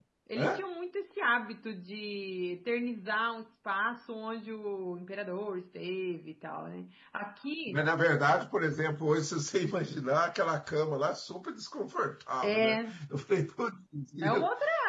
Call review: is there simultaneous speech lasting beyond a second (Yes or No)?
No